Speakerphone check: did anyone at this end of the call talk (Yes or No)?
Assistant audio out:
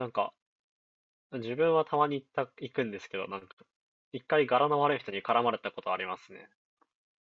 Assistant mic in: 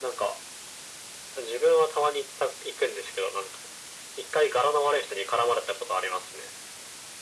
No